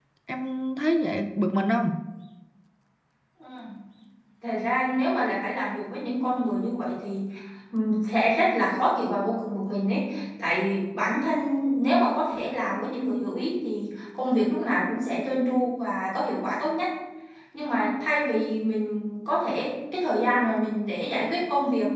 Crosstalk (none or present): none